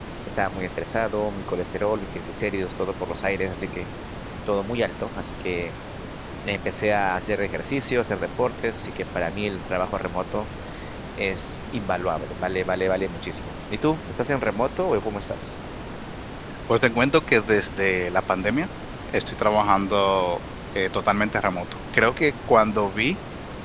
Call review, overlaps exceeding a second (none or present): none